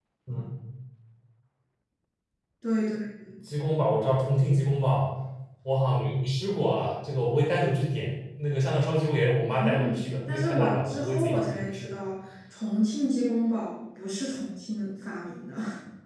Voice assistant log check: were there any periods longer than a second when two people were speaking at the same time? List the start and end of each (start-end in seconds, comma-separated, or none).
9.5-11.9